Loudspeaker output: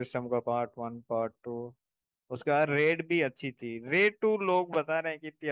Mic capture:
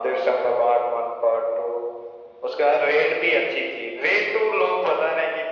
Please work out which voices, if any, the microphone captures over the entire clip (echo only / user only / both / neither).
echo only